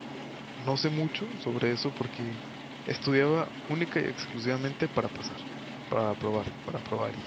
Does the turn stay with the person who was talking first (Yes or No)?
Yes